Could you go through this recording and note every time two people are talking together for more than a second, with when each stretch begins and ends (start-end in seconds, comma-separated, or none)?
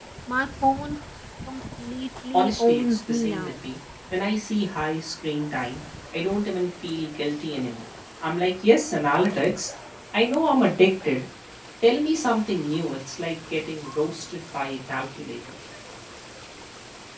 2.3-3.5